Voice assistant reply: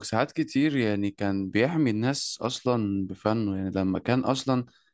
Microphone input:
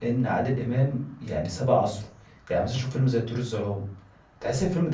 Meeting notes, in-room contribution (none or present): present